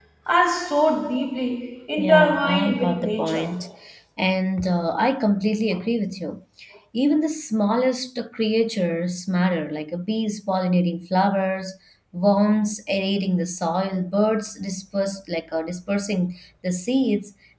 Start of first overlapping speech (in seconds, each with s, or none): 2.0 s